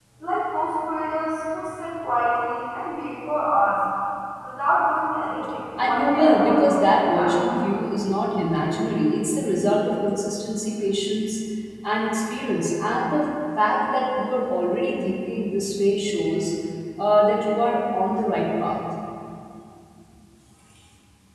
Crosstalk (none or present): present